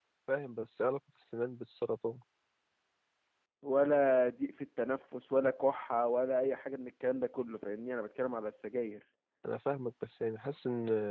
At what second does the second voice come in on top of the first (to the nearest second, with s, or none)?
none